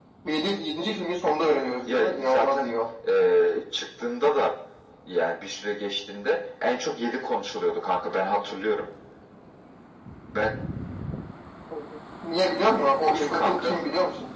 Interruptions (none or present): present